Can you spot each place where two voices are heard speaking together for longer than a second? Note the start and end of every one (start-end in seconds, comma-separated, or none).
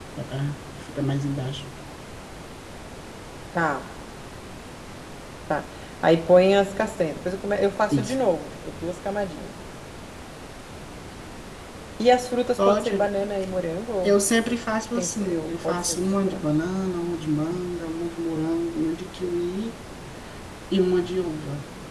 14.9-16.5